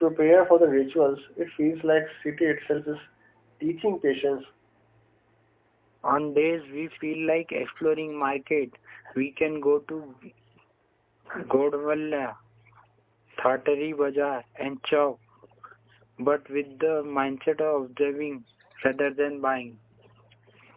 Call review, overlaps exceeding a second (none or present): none